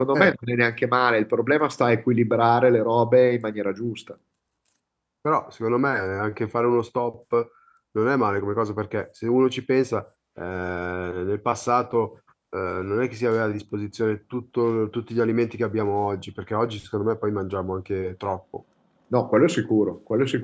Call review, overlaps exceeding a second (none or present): none